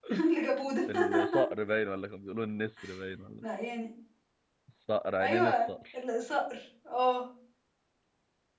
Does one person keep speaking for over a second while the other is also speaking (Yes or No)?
No